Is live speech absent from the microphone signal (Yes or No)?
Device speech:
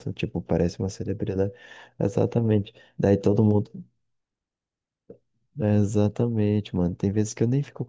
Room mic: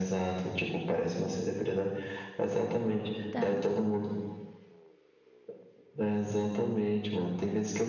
No